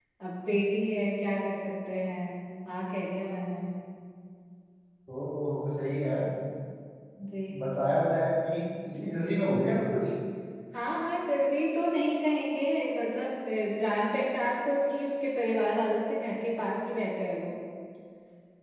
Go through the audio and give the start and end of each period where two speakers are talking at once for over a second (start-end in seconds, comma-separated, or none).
none